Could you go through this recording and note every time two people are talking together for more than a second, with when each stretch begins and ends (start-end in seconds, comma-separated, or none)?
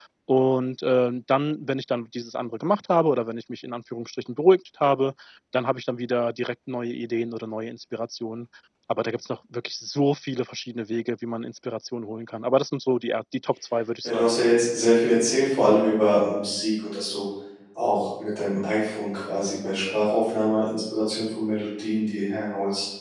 none